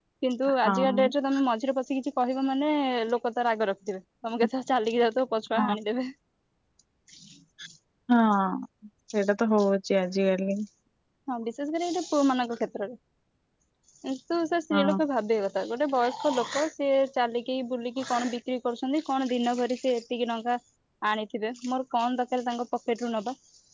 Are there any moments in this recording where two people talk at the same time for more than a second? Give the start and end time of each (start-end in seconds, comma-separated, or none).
none